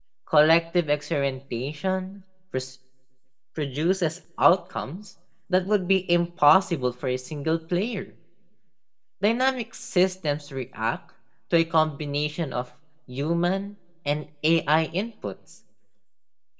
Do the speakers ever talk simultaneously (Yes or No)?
No